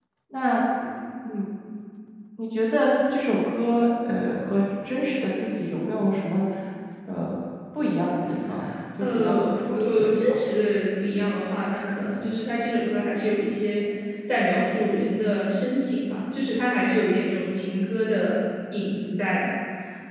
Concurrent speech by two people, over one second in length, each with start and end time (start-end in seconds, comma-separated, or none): 9.1-10.4